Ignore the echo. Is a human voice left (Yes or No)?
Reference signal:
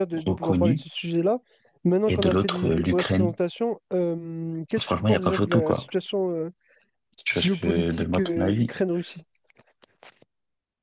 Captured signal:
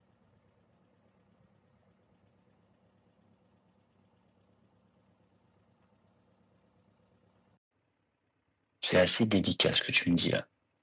Yes